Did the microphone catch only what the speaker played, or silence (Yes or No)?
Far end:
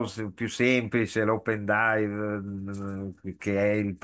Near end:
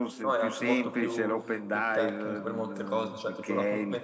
No